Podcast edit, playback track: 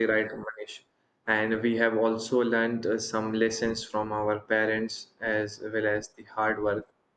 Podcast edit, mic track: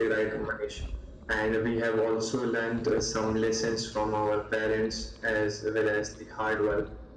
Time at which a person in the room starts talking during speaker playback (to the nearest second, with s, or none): none